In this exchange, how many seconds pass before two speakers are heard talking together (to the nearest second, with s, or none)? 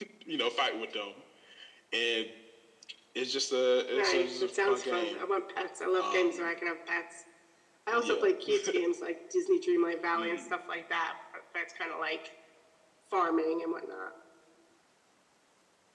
4 s